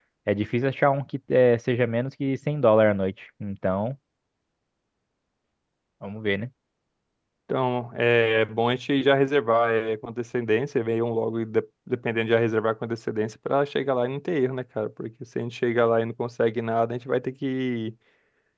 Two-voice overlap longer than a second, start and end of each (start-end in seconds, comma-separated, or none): none